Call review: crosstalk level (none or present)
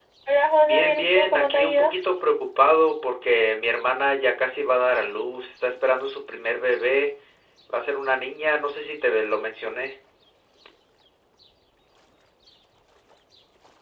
present